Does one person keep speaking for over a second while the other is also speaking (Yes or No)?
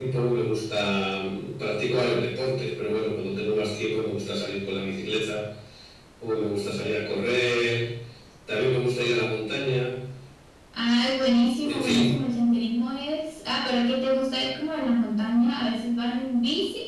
No